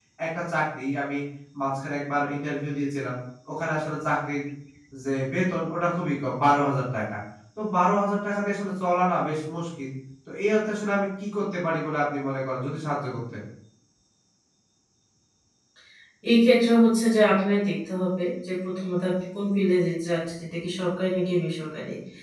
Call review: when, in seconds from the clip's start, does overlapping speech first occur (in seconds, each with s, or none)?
none